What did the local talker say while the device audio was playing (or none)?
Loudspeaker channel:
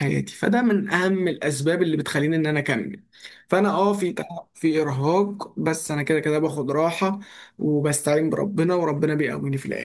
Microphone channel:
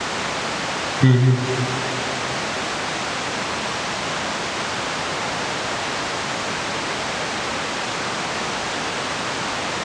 مهم.